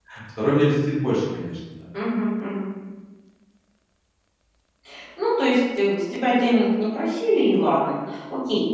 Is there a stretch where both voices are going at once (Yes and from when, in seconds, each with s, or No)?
No